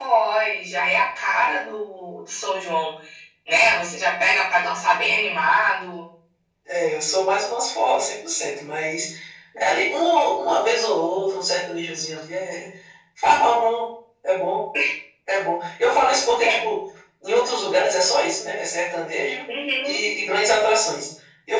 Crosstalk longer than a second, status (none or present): none